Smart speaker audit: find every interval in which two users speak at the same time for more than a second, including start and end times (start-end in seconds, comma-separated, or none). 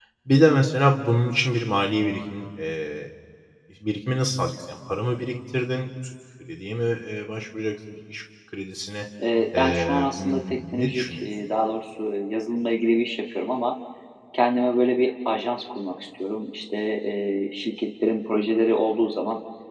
9.6-11.3